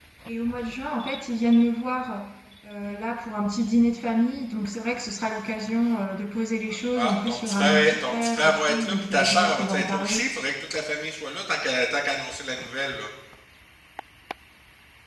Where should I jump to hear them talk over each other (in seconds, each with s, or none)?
7.0 s